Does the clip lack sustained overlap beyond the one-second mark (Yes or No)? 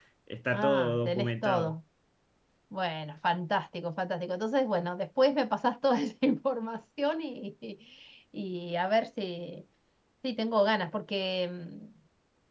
No